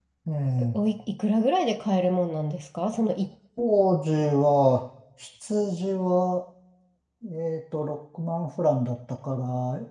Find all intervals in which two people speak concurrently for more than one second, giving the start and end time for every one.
none

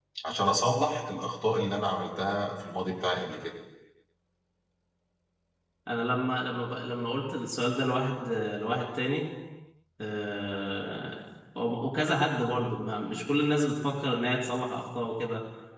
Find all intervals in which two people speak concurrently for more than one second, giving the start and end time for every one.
none

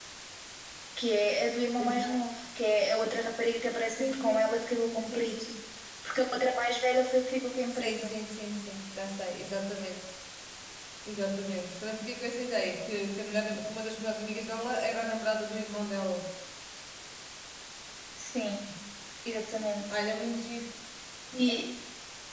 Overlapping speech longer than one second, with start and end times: 4.0-5.4

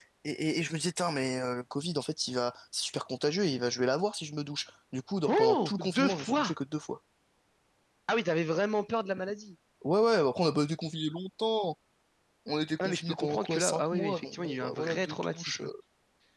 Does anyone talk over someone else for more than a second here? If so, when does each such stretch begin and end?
5.3-6.5, 12.8-15.7

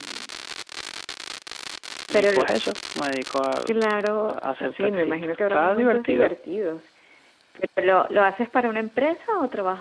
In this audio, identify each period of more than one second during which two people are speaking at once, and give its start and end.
4.2-6.3

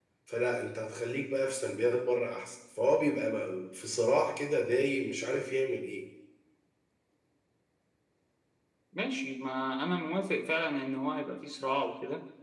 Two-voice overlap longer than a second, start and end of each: none

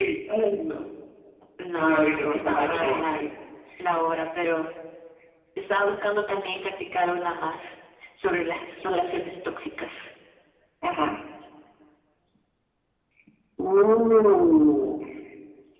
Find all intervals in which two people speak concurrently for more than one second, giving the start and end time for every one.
1.7-3.2

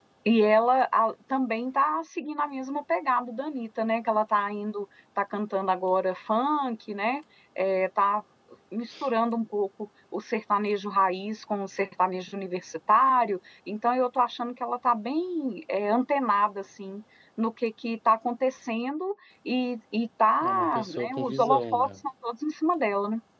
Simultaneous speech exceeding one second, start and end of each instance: 20.4-22.0

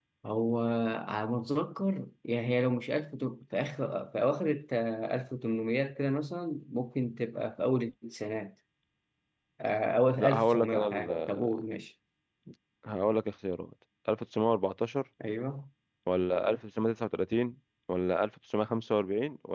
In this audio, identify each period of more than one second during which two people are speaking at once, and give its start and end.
10.2-11.6

